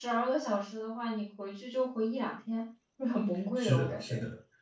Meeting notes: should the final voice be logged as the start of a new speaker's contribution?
Yes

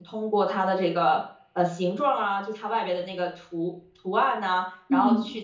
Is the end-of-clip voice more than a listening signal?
No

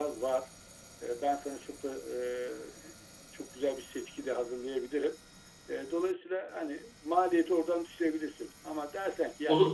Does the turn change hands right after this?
No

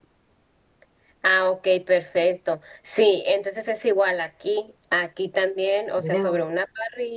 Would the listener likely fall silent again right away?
Yes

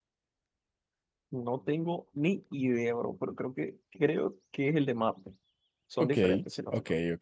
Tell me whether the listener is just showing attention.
No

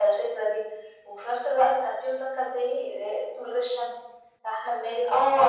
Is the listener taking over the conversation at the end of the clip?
Yes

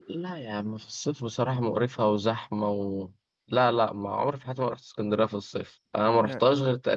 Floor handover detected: No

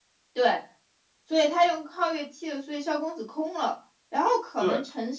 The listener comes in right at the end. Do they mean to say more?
No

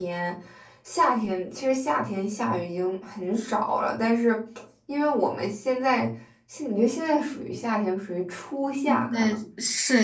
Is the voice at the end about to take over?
Yes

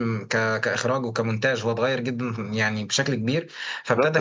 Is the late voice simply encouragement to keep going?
Yes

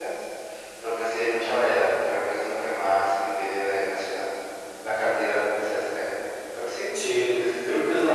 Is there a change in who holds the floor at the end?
Yes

